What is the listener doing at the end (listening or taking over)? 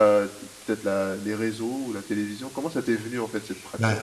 taking over